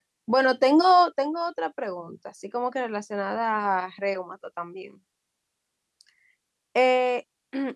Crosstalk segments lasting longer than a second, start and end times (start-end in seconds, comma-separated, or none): none